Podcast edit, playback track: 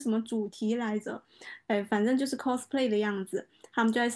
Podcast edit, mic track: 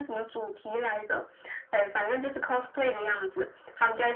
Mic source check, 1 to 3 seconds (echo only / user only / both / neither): echo only